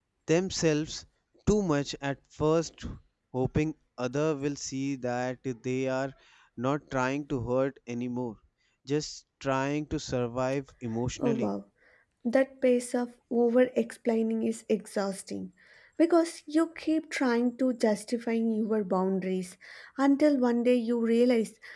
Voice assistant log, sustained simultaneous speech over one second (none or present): none